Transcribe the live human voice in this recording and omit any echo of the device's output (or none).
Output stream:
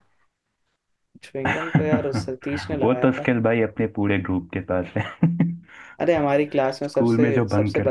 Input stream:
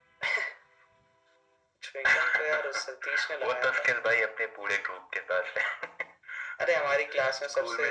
none